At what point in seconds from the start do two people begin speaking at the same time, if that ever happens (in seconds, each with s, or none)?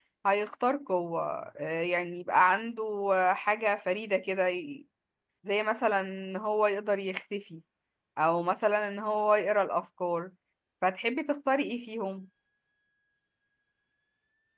none